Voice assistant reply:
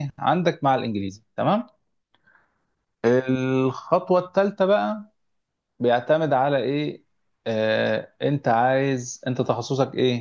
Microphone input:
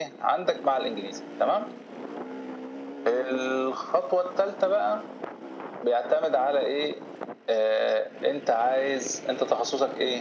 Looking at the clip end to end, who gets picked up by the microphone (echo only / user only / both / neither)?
echo only